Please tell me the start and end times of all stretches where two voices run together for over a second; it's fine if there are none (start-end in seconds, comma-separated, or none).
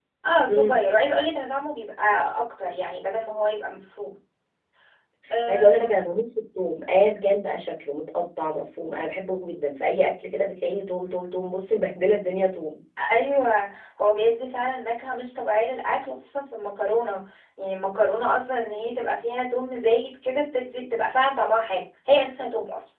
none